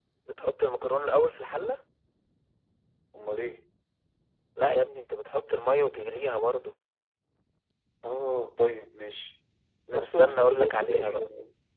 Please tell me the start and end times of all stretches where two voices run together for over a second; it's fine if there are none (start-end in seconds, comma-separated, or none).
9.9-11.3